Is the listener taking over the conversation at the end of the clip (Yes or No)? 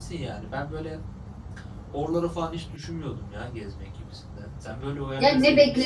Yes